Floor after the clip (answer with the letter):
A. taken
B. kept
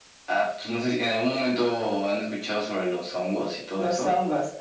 A